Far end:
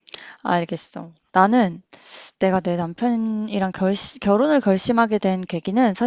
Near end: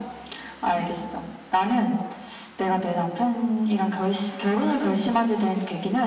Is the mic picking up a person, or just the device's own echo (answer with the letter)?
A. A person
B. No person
B